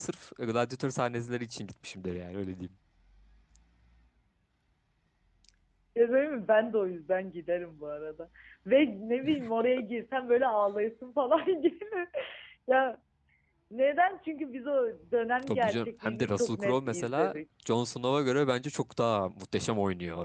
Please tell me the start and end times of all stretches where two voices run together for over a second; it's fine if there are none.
15.5-17.4

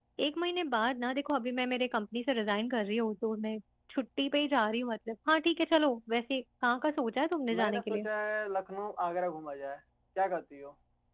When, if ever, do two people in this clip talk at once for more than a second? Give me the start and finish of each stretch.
none

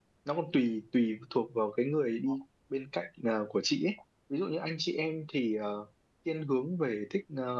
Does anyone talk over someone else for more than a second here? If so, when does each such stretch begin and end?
none

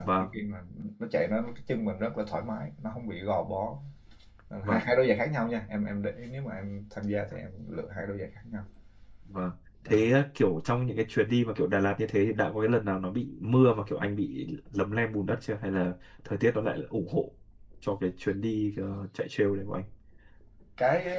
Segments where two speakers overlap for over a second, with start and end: none

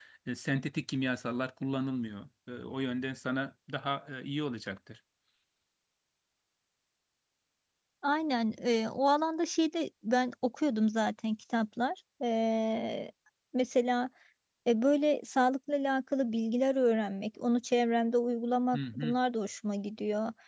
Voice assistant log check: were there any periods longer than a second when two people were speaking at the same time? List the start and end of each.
none

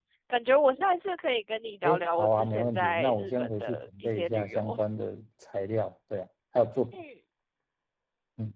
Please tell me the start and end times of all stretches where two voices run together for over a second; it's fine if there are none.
1.8-4.8

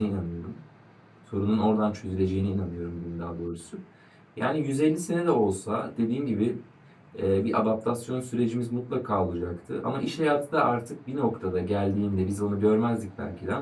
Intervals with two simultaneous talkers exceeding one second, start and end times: none

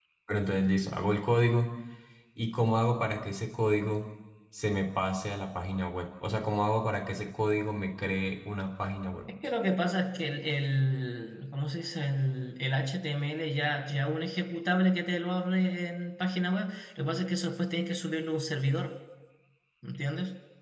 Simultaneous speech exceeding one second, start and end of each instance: none

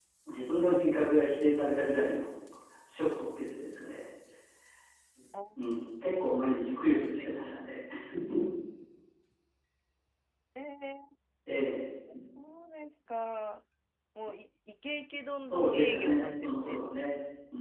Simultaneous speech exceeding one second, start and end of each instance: 15.5-16.8

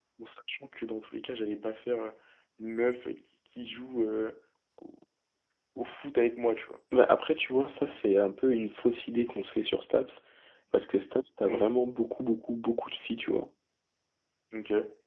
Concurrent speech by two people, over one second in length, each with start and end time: none

